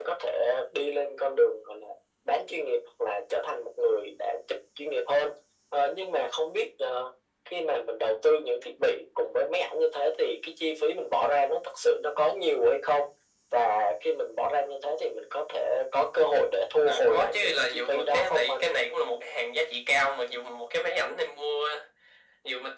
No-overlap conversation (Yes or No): No